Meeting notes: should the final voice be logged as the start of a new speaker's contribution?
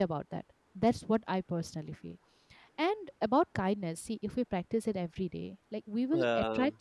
No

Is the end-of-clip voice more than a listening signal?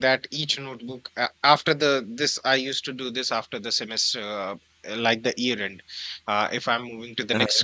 No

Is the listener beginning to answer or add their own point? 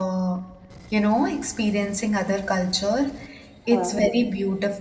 No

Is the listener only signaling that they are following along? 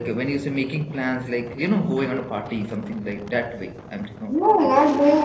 No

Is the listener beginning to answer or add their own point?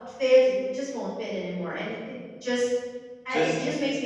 No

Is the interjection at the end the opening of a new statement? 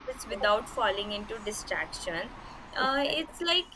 No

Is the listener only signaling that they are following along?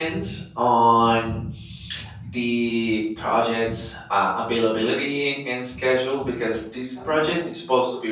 Yes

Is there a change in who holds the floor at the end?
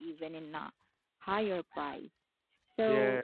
No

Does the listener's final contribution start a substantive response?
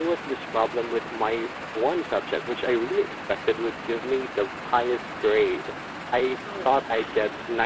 No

